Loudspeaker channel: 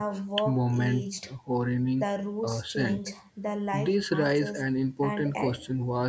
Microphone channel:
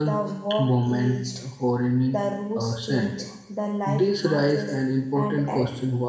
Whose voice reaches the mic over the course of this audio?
echo only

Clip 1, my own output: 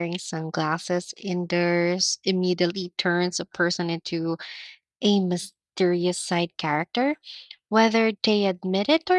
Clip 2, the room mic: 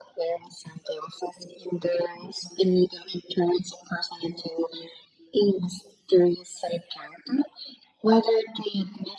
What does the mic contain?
echo only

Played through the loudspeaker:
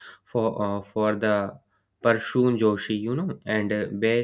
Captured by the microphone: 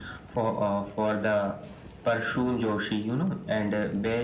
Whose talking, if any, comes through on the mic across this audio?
echo only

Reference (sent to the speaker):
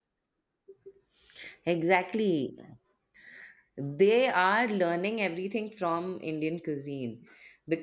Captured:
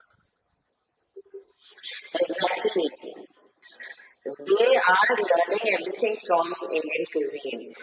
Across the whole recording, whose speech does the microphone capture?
echo only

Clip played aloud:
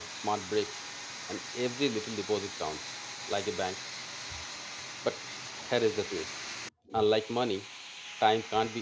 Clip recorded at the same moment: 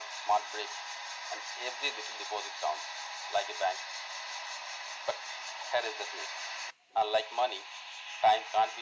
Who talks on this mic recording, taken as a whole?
echo only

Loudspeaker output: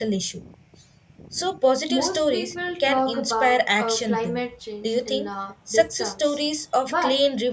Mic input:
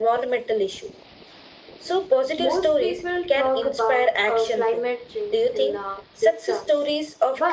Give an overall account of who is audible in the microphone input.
echo only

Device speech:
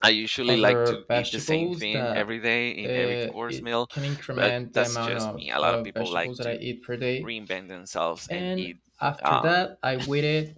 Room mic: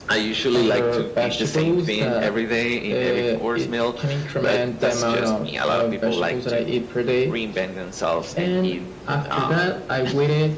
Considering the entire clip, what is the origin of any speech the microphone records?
echo only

